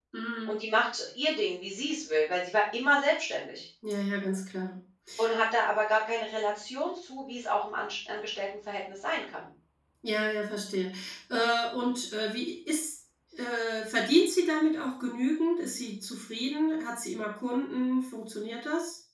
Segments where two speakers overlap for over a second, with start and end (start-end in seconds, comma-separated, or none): none